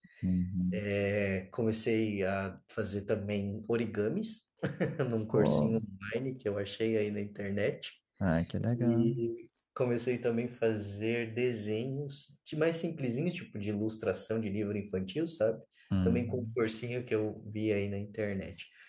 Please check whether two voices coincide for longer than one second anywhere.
No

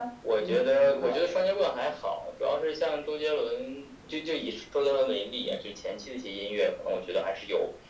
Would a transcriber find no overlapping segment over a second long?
No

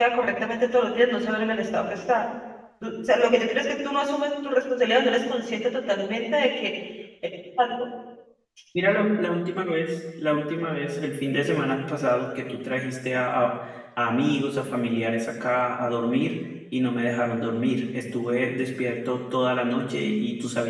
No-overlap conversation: Yes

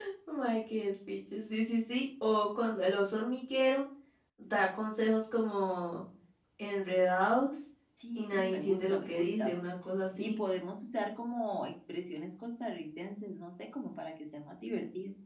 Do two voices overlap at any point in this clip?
Yes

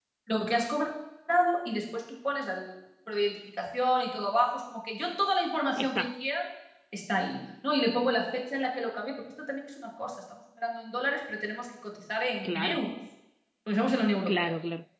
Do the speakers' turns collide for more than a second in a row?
No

